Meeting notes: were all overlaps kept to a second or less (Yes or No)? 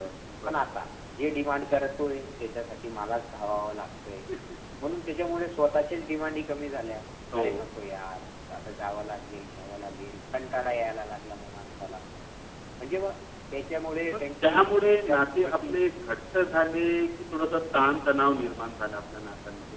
No